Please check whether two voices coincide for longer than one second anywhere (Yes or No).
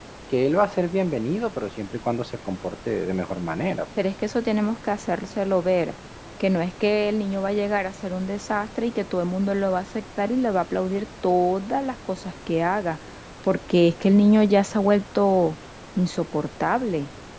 No